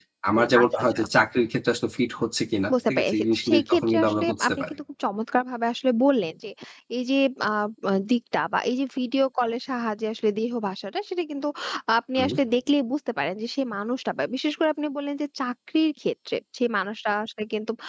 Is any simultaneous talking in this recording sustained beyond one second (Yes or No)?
Yes